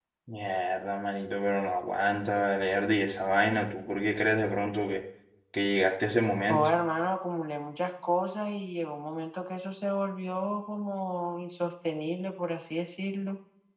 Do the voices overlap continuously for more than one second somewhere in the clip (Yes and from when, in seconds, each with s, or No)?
No